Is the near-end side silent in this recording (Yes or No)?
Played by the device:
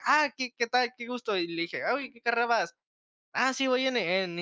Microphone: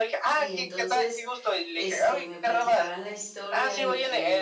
No